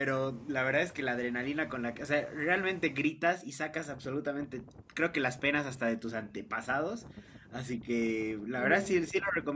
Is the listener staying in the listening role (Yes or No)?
Yes